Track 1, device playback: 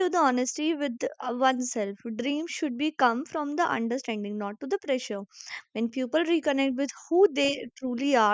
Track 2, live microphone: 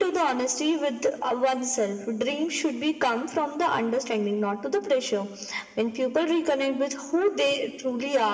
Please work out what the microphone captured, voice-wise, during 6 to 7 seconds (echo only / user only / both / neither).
echo only